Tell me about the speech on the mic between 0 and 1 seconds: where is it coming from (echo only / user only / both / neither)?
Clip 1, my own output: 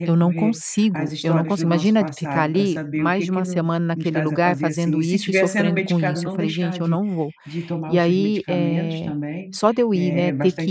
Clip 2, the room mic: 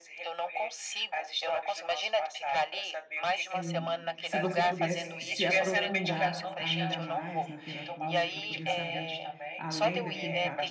echo only